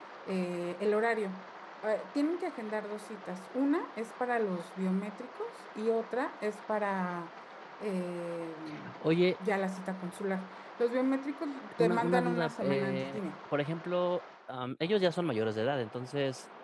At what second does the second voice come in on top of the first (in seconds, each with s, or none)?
11.8 s